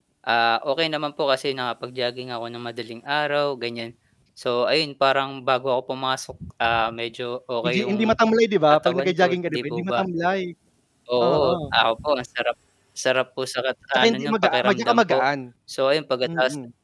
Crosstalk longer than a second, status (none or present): present